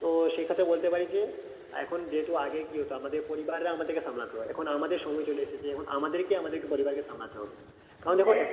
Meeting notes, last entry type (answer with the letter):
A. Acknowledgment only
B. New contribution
A